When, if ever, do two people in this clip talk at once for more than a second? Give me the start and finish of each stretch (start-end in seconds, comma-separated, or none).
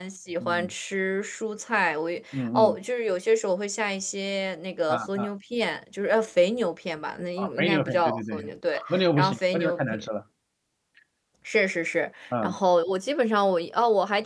7.4-10.1